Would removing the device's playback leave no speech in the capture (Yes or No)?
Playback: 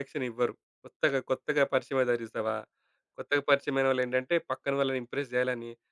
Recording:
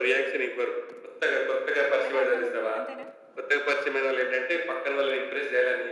No